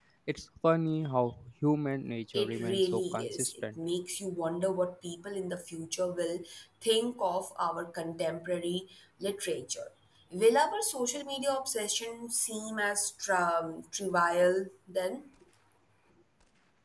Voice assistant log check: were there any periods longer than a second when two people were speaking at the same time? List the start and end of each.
2.3-3.8

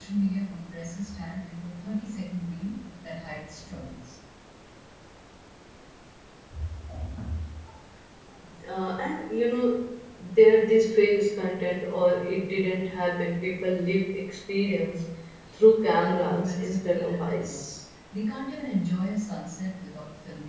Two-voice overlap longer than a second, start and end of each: 16.0-17.5

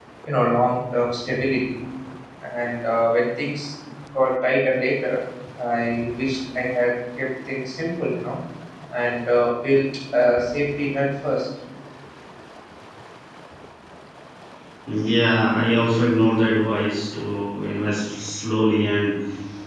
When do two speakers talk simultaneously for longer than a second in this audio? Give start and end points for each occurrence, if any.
none

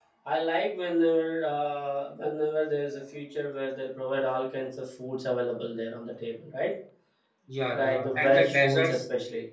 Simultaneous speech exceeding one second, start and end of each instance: 7.7-9.0

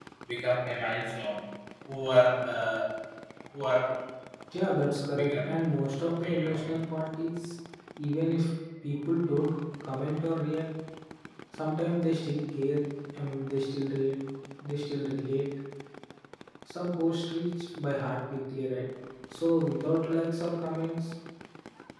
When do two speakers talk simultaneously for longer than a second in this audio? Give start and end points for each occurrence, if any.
none

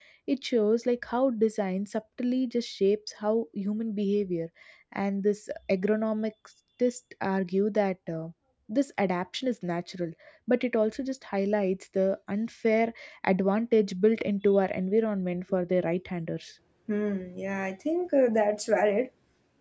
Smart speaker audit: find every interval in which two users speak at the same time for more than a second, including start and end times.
none

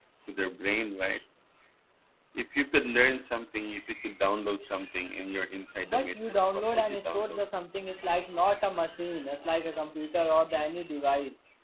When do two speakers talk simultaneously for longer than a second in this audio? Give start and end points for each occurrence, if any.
5.8-7.4

